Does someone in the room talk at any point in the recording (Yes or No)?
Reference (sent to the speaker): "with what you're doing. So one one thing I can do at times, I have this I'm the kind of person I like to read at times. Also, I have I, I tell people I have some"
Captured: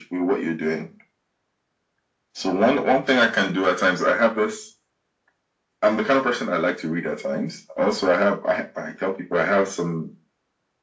No